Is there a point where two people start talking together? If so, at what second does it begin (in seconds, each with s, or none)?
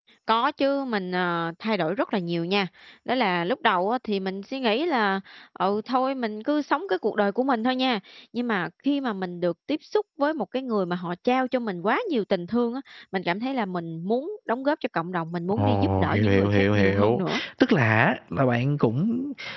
15.5 s